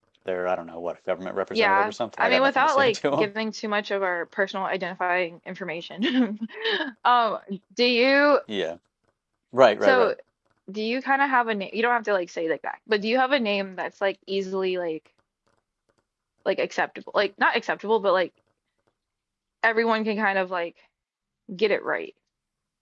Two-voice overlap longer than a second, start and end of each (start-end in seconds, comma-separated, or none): 1.5-3.3